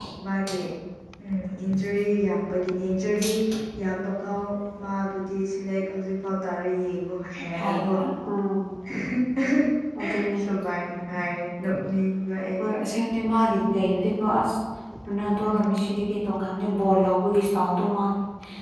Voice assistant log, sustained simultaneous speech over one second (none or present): none